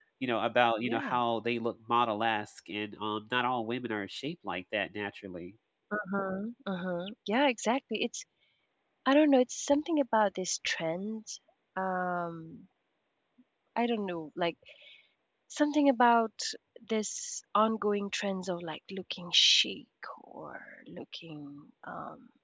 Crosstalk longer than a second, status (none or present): none